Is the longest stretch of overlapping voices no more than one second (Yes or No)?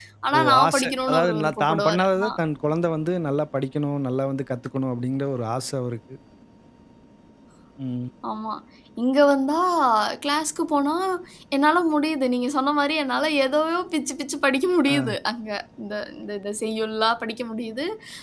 No